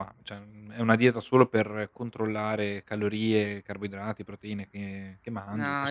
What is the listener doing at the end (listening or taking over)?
taking over